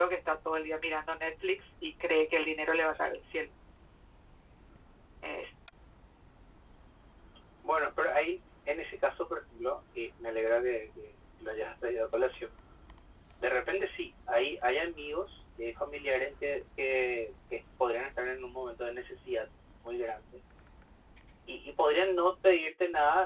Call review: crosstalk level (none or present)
none